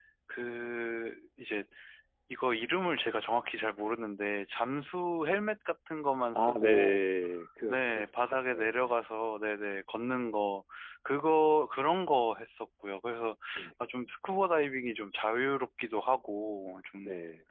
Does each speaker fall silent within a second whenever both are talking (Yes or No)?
No